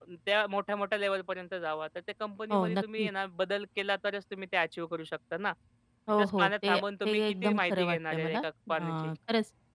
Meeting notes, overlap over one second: present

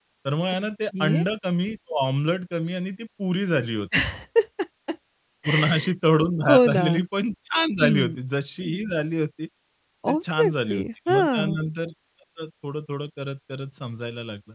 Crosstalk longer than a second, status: present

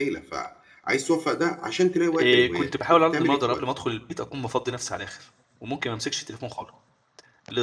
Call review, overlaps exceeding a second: present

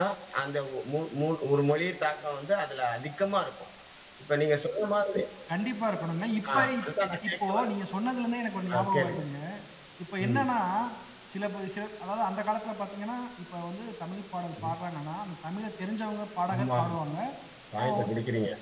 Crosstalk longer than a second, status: none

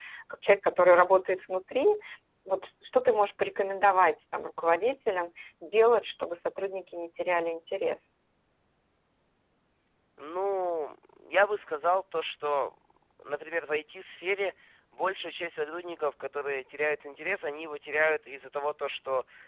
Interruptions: none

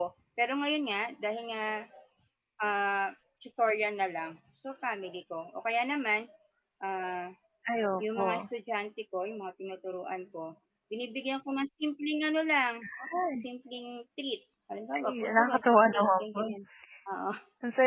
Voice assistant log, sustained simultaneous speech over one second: present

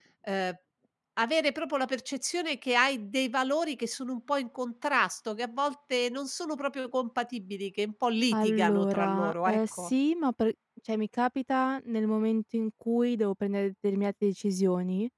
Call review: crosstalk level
present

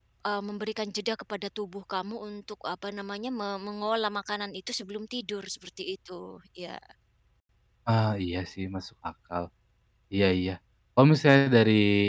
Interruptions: none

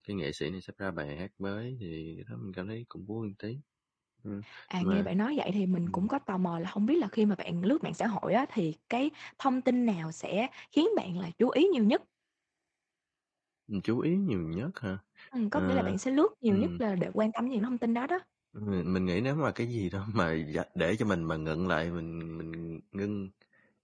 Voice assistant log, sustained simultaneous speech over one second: none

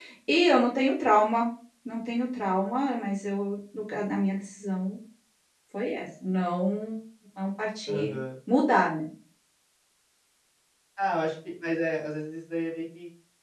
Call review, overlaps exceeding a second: none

